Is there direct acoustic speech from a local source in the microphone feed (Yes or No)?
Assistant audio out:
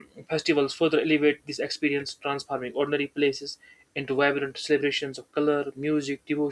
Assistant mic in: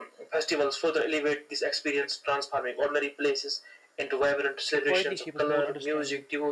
Yes